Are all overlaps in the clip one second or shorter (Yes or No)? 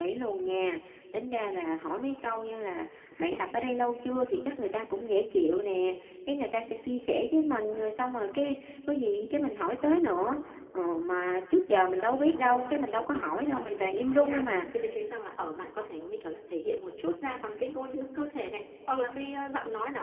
No